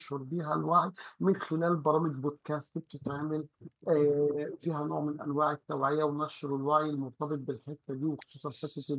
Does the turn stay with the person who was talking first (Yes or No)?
No